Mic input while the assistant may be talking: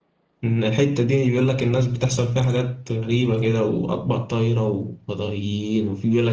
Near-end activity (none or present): present